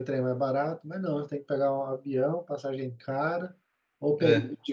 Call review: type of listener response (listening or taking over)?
listening